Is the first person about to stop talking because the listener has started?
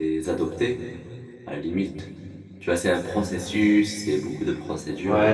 Yes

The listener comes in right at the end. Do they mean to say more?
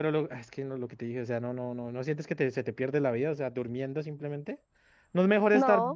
No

